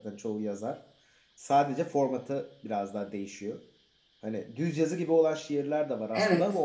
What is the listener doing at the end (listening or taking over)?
listening